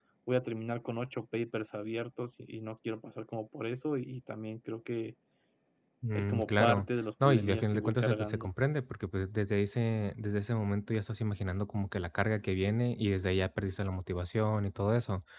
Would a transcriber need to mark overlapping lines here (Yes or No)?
Yes